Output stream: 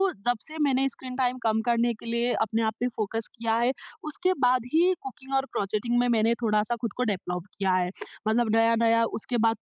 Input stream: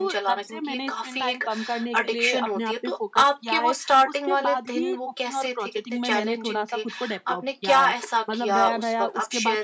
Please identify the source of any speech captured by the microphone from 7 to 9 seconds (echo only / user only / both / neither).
both